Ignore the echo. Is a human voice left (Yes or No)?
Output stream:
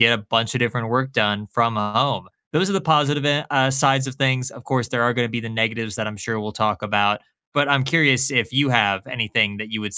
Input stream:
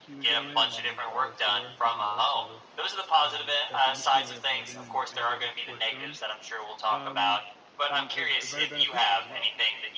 Yes